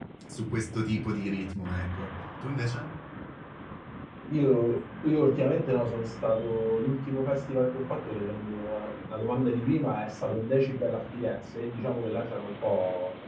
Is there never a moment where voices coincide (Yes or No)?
Yes